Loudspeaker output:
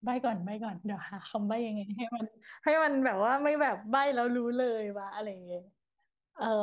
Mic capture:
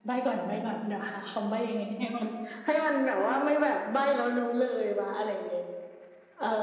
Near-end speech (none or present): none